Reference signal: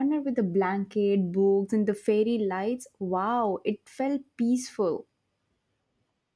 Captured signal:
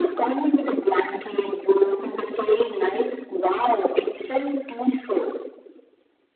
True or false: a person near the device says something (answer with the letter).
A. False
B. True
A